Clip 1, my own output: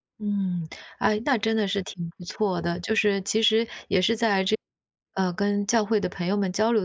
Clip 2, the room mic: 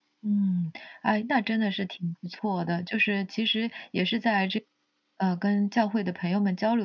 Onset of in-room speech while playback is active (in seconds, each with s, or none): none